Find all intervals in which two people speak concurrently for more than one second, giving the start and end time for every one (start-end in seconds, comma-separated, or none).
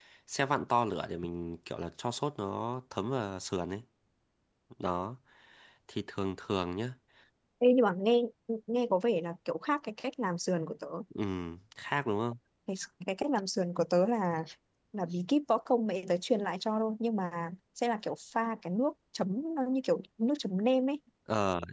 none